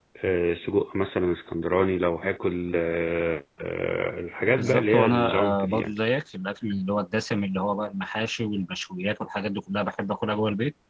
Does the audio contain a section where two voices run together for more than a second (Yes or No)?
Yes